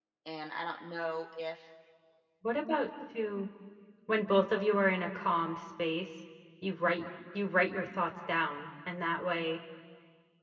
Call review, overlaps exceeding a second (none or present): none